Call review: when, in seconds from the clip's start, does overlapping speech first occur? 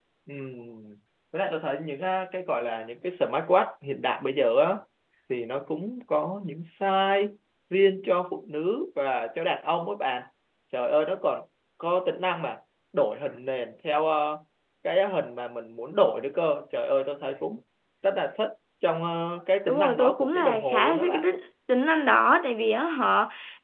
19.7 s

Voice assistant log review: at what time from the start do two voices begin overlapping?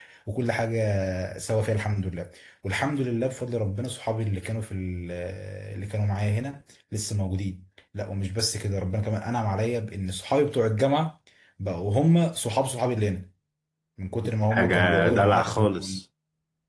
14.5 s

